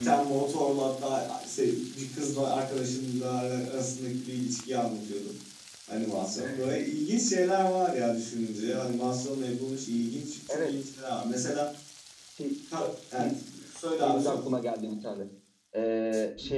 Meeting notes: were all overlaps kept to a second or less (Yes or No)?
Yes